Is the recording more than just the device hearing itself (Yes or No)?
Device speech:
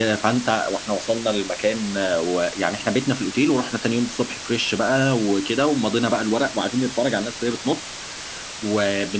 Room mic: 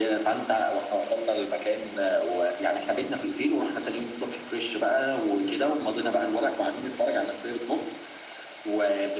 No